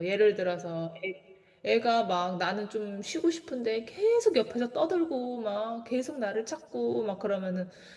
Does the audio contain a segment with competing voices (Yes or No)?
No